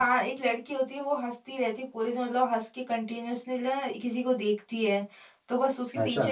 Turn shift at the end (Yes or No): No